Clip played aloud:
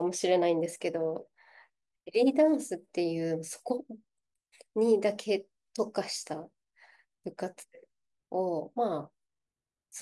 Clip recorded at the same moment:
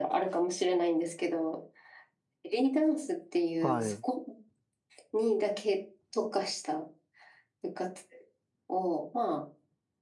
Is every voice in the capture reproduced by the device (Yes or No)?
No